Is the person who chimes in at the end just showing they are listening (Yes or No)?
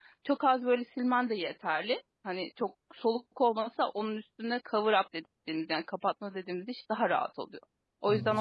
No